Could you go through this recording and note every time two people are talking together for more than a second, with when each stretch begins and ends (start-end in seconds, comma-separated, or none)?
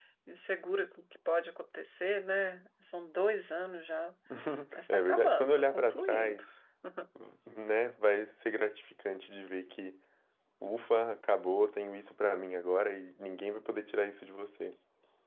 4.9-6.4